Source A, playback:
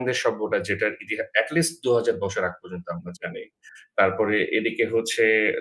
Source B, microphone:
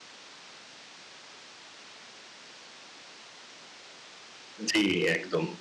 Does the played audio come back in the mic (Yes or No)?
No